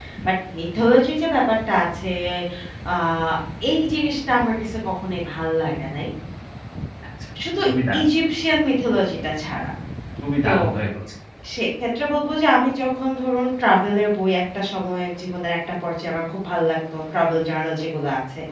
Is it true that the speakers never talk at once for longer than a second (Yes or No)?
Yes